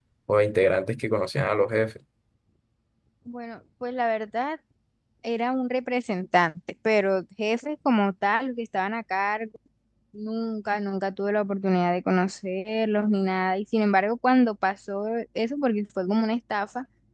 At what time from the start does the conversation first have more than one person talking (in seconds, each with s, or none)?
none